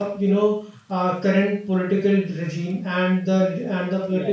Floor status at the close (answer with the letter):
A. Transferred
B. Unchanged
B